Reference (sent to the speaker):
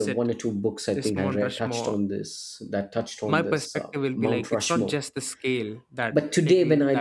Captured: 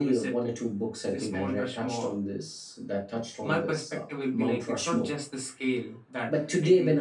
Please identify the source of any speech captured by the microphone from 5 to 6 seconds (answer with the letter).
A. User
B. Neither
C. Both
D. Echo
D